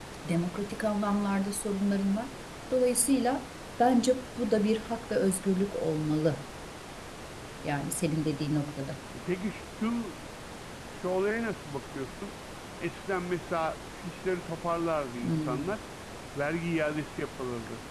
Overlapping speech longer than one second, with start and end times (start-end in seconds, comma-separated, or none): none